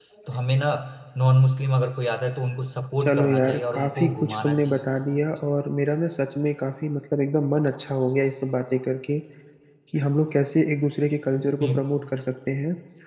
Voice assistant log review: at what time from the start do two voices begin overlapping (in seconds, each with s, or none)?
3.0 s